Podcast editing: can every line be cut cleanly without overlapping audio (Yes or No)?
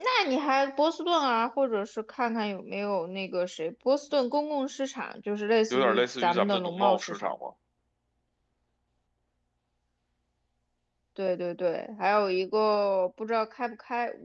No